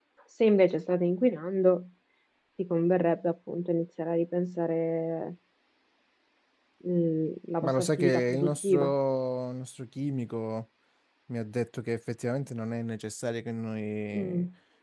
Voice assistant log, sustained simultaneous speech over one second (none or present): present